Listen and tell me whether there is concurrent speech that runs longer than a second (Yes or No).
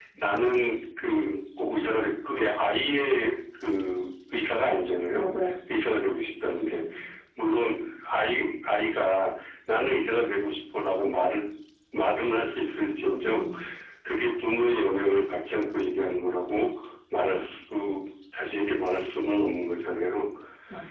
No